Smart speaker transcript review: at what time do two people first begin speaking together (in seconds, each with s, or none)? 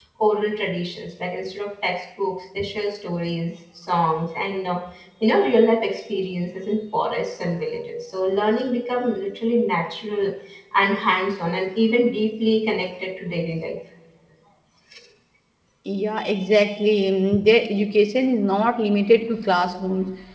none